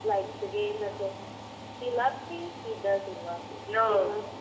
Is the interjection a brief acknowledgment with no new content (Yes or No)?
No